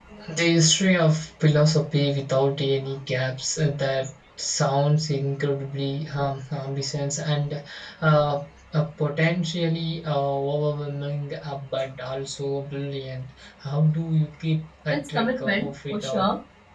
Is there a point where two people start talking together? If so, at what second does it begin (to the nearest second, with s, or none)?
15 s